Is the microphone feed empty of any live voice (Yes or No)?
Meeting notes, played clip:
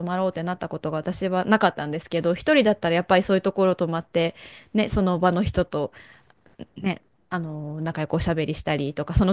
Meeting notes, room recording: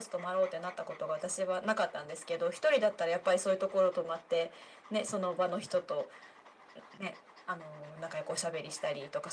Yes